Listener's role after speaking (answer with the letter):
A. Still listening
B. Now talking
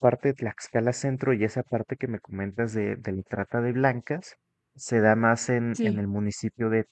A